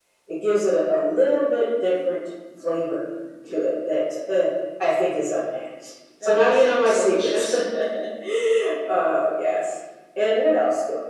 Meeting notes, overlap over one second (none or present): present